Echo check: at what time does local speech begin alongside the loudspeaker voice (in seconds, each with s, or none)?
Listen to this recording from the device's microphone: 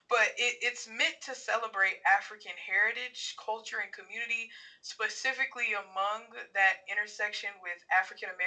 none